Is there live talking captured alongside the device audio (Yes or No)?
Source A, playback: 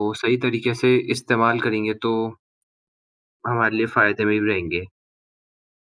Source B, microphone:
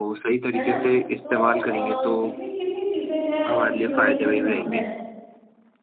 Yes